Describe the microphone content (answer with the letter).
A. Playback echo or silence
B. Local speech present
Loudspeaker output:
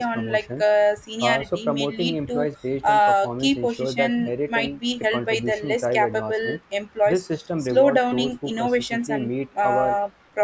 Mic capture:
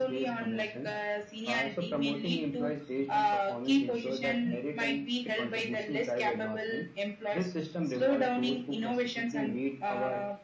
A